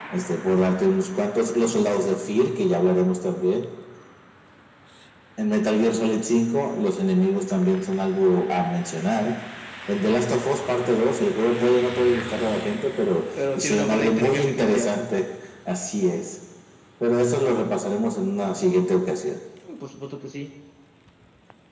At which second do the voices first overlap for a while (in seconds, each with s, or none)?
13.4 s